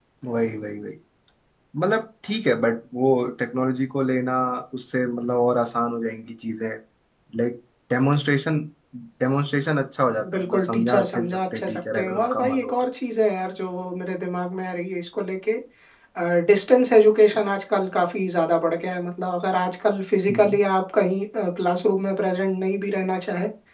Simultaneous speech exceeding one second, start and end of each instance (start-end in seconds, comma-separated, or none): 10.3-12.7